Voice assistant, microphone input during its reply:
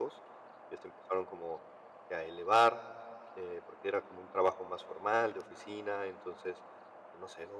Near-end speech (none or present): present